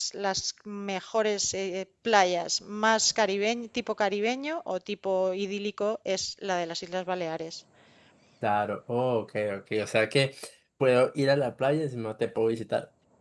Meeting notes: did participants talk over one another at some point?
No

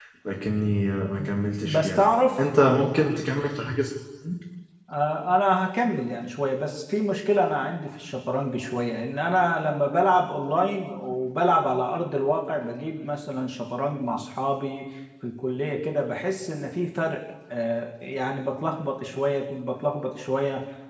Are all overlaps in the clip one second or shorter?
Yes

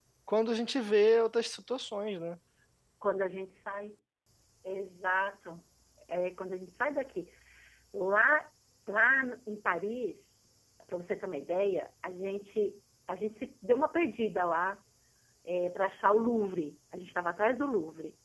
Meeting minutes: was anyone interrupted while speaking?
No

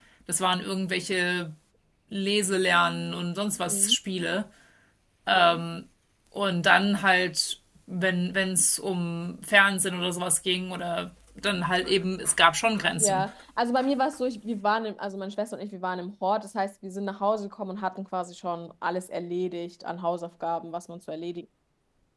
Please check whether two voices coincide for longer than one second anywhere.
No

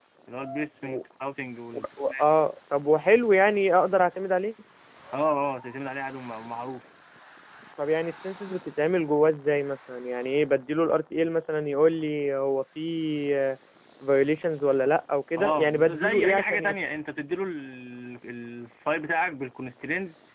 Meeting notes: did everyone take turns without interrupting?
No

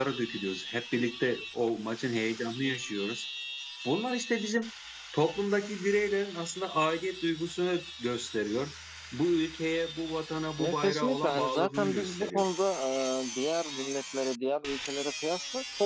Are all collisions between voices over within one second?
No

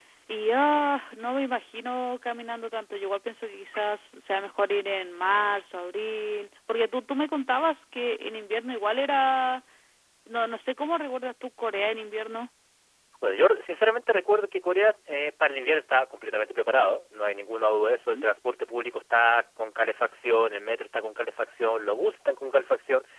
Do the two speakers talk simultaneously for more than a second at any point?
No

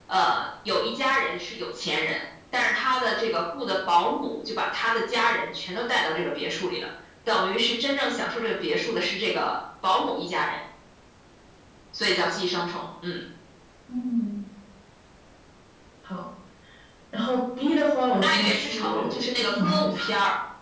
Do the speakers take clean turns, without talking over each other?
No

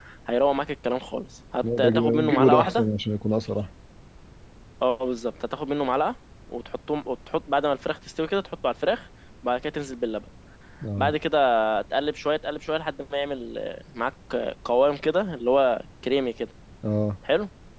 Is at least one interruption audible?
Yes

